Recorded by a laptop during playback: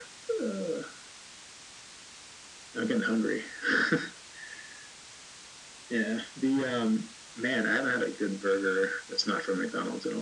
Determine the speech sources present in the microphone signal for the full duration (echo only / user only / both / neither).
echo only